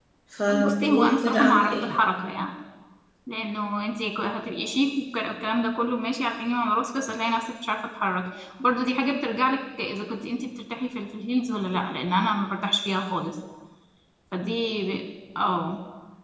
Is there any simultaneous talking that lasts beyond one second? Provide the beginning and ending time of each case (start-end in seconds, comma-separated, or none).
0.6-1.9